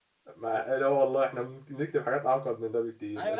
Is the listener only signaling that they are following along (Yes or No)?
No